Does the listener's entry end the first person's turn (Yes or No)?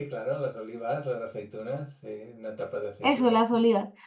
Yes